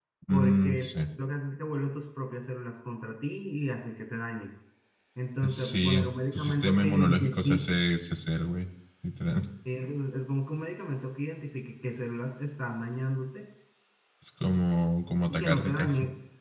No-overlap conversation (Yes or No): No